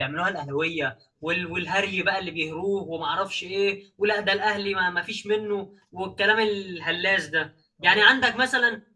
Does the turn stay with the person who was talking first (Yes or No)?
Yes